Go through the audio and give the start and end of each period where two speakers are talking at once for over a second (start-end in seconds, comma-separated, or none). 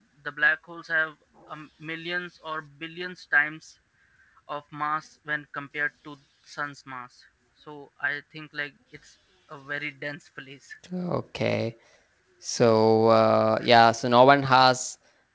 none